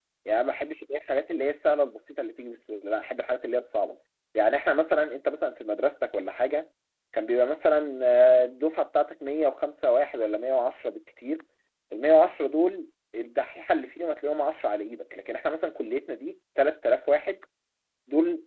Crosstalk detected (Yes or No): No